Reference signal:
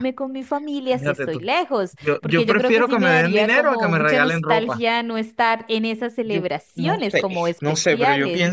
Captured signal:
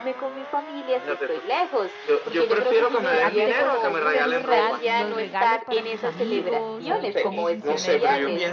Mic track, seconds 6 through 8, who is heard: both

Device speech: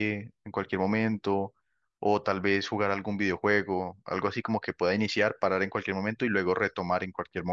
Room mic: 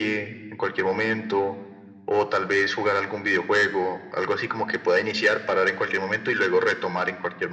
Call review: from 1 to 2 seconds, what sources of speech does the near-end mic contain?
echo only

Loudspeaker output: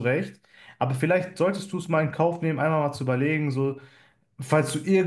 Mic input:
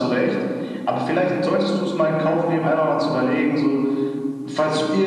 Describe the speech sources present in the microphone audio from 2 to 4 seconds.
echo only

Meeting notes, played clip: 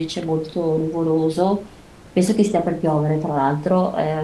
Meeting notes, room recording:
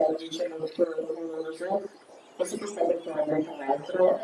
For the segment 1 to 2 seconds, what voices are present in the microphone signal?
echo only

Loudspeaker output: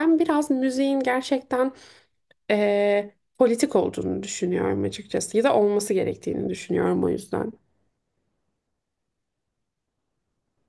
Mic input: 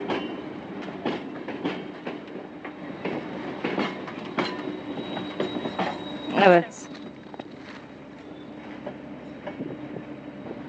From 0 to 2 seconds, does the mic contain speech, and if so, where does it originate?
neither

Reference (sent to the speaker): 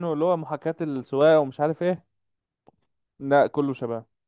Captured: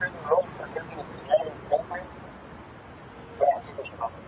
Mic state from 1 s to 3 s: echo only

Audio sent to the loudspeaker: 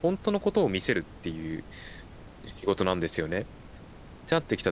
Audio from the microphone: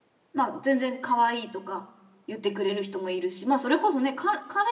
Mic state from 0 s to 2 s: user only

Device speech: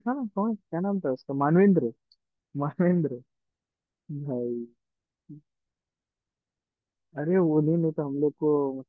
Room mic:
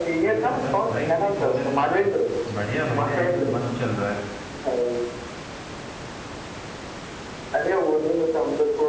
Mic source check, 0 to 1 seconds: both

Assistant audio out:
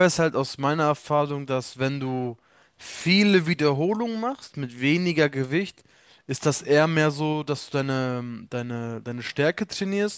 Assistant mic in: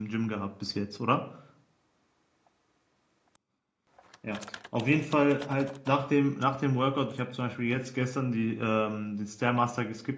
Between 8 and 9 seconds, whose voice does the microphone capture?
user only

